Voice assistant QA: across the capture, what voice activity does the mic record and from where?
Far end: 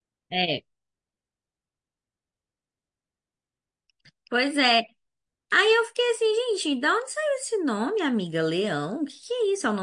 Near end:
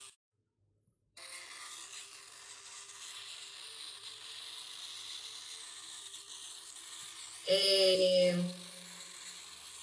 user only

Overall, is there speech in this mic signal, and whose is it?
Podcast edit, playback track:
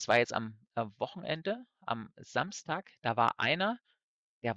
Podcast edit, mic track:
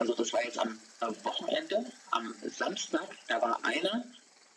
echo only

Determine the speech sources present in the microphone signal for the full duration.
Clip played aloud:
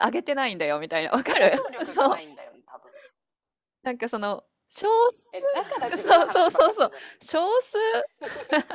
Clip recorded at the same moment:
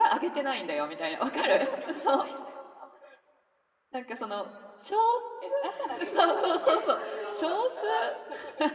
both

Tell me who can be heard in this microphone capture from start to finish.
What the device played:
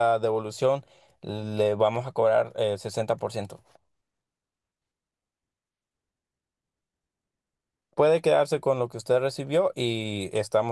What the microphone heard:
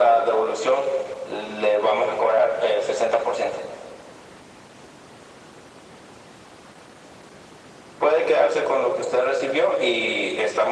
echo only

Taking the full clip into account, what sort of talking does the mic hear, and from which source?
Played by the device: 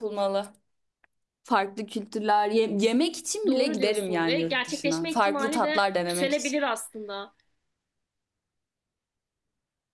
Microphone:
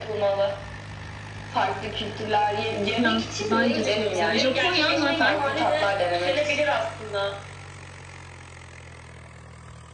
both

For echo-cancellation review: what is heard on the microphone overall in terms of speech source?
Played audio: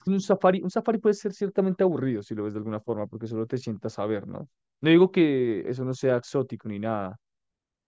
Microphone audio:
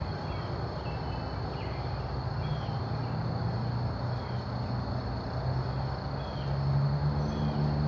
neither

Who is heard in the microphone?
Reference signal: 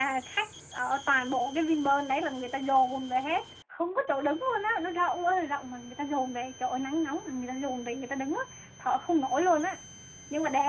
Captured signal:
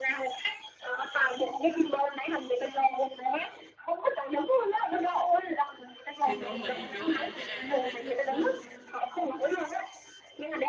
both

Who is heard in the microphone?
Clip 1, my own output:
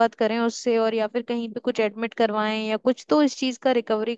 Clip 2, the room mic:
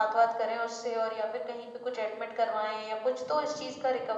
echo only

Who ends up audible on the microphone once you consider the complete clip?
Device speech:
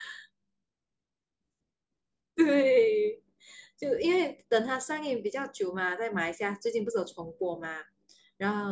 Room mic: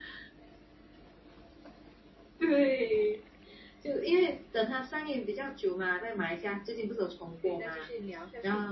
both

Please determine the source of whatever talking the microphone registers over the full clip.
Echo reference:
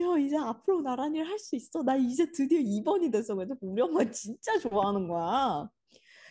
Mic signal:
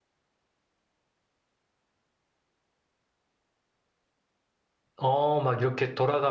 user only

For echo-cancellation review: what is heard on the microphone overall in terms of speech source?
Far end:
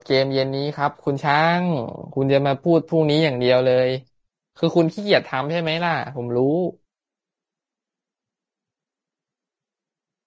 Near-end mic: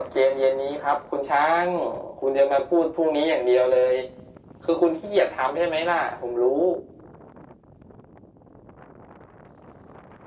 echo only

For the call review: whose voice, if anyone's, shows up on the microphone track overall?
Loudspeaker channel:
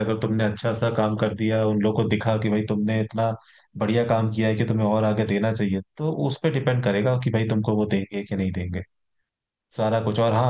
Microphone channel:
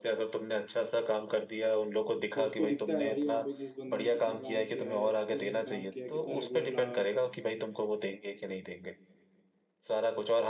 both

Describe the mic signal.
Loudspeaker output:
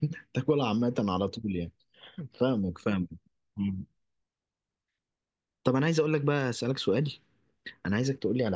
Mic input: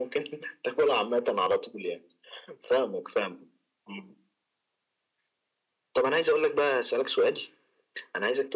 echo only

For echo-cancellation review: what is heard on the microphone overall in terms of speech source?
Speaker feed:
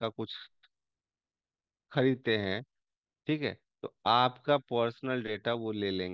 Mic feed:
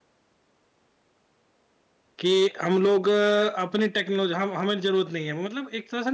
user only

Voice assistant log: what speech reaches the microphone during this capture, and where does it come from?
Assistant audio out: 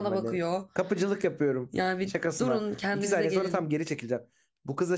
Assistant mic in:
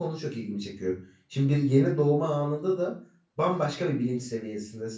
user only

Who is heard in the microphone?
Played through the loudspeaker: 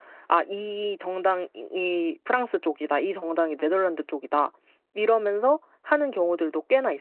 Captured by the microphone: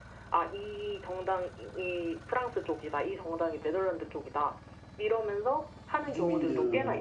both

